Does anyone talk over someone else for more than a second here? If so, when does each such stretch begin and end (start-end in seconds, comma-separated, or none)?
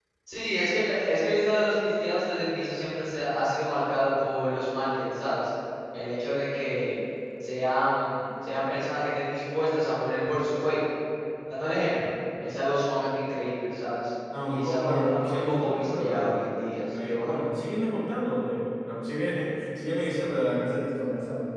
14.5-17.3